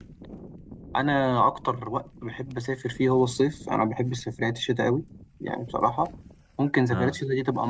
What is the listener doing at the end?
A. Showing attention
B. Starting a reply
A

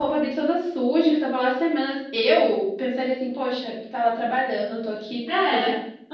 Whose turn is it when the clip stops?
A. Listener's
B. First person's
B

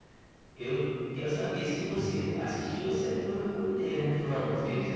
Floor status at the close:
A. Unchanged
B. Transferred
B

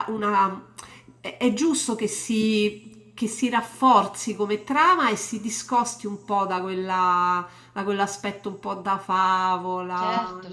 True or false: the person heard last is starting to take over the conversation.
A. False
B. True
B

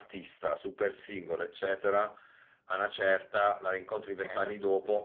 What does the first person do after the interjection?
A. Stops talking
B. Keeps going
B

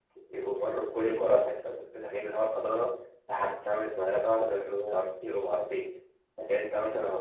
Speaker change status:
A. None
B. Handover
A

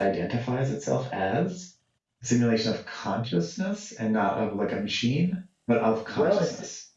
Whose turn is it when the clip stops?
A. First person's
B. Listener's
B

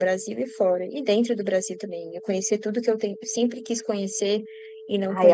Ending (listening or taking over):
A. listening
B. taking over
B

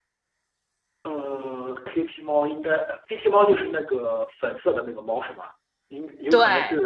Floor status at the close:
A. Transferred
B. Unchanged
B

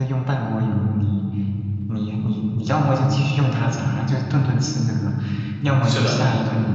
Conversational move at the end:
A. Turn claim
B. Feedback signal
B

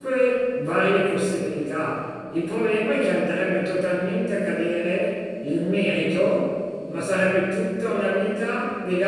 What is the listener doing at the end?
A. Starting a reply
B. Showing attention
B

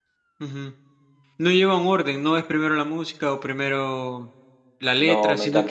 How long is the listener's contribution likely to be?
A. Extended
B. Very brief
A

